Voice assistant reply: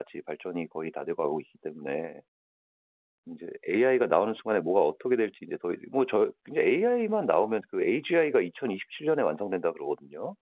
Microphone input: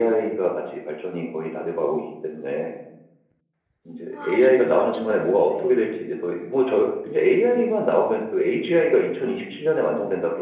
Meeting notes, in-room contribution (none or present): present